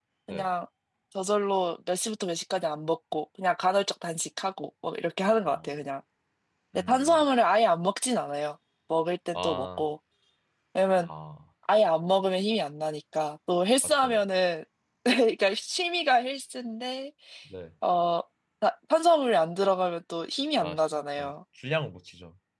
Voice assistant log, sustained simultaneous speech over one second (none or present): none